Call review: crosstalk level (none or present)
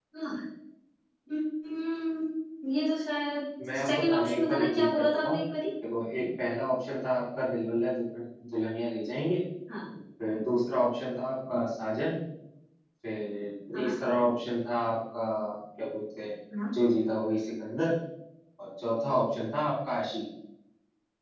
present